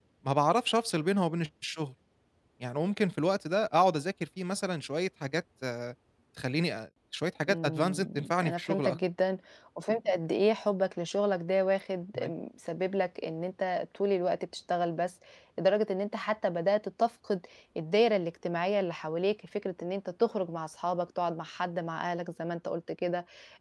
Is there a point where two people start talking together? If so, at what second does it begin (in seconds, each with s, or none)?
7.5 s